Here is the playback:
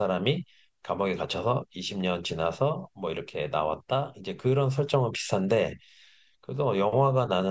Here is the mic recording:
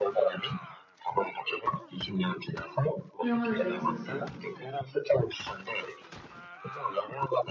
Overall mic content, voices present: both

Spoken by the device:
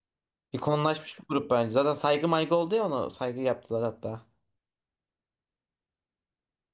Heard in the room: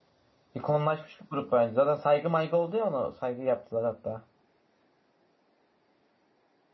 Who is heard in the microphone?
echo only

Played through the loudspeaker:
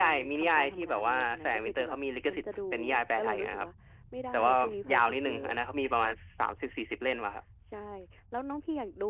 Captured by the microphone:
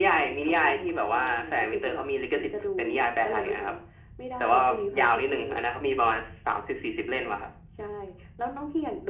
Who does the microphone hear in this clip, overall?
echo only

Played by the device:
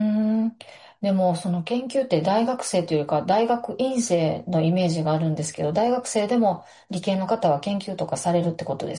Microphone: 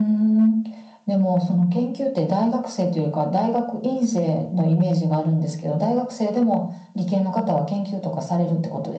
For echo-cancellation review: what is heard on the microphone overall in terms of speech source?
echo only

